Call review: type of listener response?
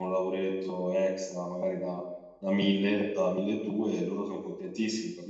listening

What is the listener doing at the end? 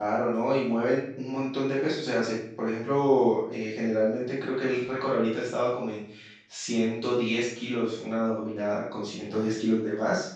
listening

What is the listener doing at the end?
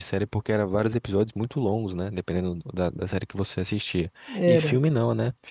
listening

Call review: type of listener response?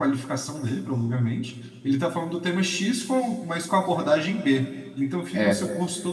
listening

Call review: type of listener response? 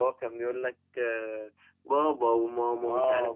taking over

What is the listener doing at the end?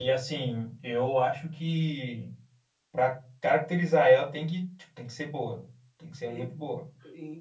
taking over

